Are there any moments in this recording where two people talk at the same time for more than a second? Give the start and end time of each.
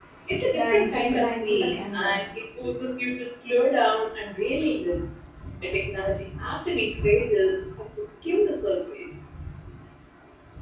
0.5-2.2

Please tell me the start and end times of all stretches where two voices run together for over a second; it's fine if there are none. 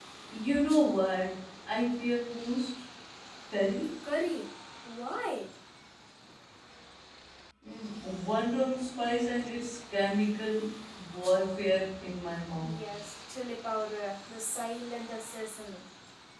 none

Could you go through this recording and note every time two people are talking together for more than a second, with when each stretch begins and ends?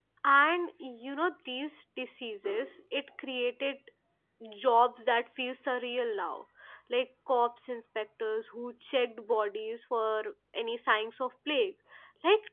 none

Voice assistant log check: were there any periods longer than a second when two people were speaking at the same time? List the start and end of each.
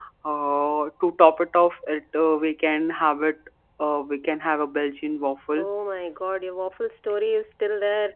none

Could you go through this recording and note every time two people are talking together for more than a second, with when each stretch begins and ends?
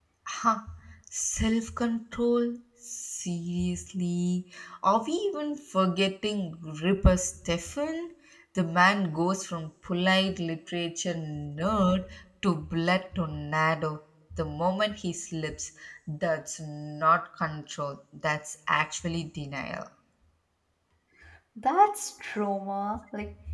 none

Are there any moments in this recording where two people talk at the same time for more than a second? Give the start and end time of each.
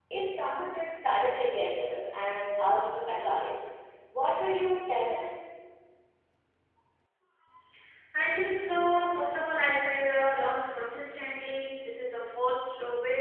none

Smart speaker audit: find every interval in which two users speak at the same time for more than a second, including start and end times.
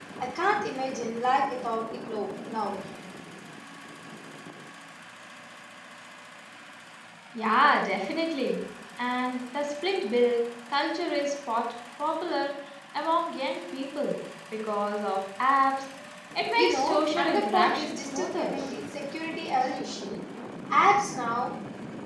16.5-18.5

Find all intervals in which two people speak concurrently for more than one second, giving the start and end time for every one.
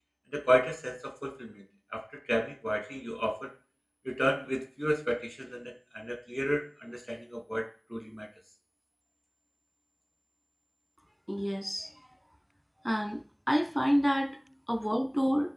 none

